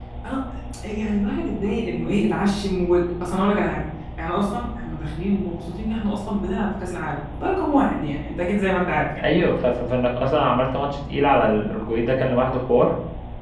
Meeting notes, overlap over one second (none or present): none